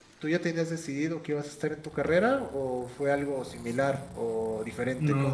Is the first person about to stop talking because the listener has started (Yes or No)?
Yes